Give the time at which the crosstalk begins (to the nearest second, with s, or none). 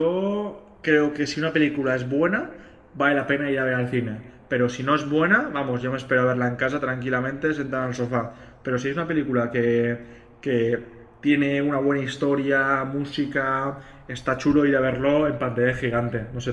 none